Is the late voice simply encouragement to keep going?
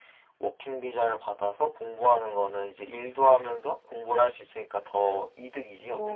No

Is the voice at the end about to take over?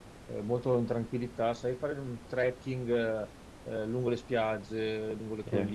No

